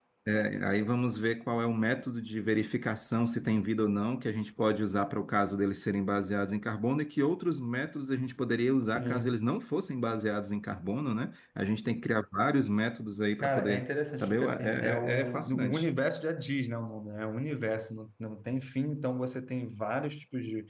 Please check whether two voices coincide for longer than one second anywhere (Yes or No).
Yes